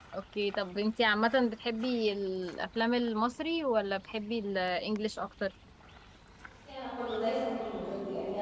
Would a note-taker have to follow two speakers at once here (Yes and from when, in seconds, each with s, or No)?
No